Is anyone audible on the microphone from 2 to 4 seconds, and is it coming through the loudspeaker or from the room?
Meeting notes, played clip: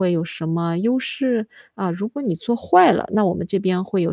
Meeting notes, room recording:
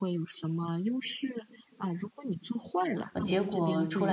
both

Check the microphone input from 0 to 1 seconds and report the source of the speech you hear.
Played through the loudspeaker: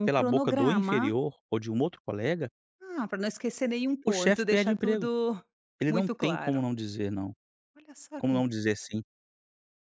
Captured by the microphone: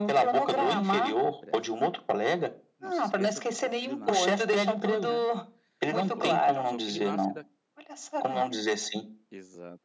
both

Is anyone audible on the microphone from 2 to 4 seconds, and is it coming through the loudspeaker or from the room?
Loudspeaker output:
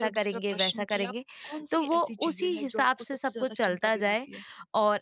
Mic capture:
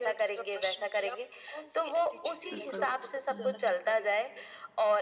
both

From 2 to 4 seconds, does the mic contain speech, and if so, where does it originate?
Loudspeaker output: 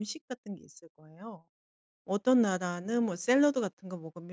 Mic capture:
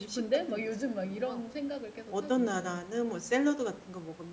both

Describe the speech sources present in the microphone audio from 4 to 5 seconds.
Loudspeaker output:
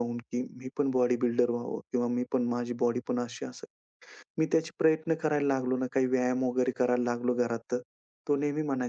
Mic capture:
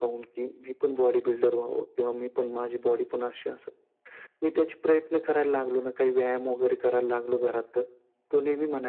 echo only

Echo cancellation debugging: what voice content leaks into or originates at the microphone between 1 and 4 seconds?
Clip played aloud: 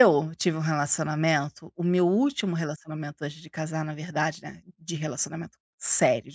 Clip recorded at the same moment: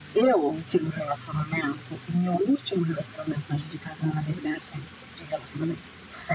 echo only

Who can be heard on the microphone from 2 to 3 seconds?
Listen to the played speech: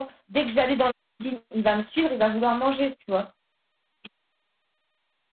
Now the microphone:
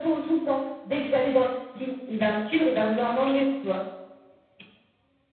echo only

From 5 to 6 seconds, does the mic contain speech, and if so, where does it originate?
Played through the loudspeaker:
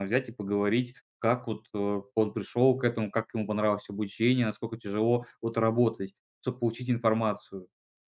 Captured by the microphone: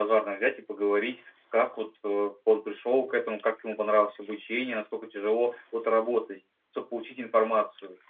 echo only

